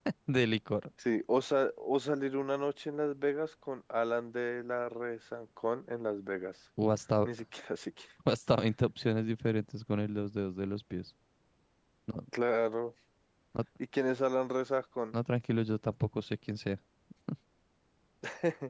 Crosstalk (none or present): none